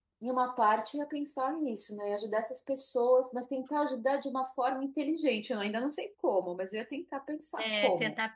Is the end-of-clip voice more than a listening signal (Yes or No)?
Yes